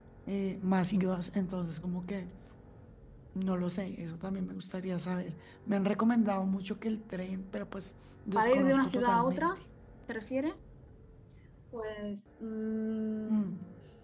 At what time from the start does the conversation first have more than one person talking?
8.3 s

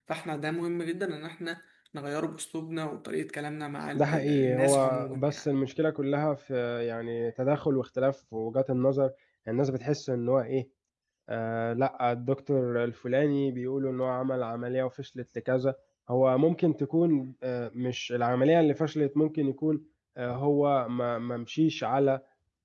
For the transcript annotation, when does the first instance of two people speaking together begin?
4.0 s

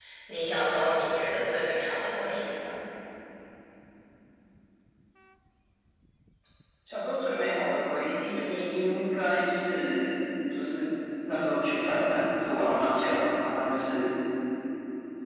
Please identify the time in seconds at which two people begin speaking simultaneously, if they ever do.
none

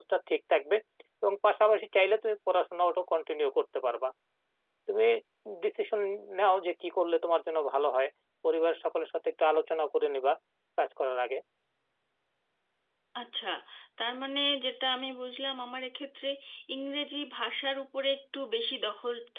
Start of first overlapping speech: none

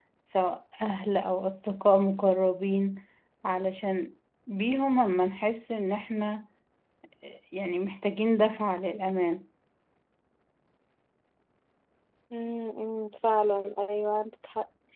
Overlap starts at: none

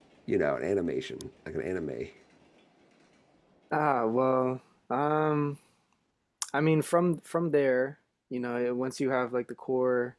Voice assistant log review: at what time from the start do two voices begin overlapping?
none

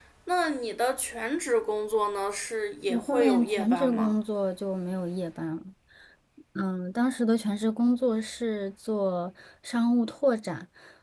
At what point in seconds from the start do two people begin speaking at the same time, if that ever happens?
2.9 s

